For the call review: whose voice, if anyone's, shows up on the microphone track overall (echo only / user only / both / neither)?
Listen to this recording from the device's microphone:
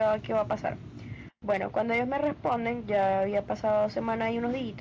echo only